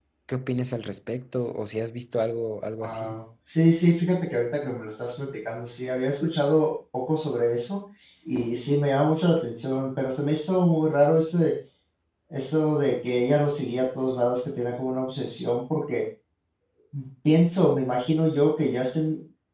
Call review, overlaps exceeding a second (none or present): none